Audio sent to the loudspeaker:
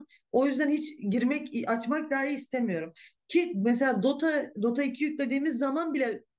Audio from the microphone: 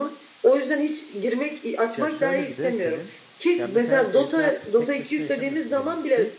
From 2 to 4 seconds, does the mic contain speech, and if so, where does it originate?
both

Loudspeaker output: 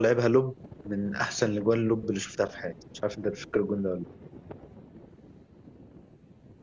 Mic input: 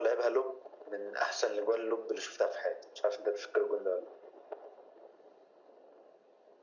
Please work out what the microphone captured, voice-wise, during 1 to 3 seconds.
echo only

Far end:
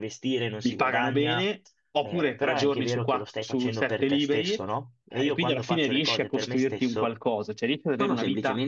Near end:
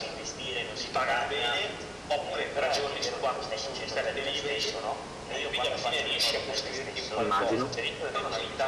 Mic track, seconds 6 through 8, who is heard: both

